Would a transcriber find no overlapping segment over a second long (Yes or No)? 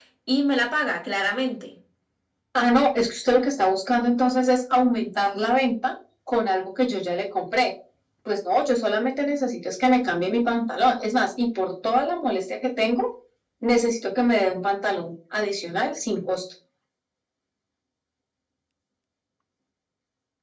Yes